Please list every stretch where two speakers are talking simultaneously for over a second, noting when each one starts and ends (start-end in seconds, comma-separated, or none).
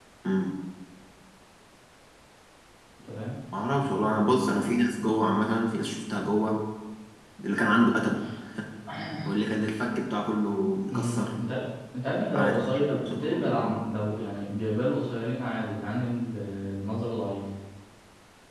12.3-13.8